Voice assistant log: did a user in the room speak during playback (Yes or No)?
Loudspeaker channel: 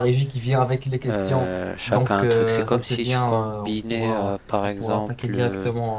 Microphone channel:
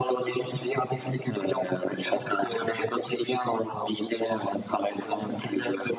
No